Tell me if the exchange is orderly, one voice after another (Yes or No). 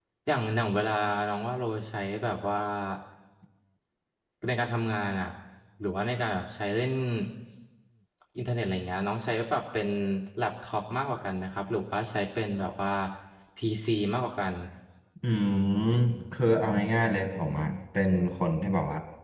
Yes